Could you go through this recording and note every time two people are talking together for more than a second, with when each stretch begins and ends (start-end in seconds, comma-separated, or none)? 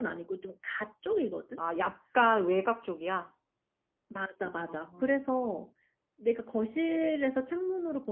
none